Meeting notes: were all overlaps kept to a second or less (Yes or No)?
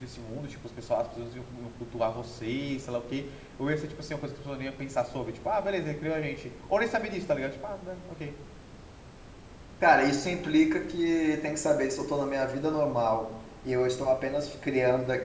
Yes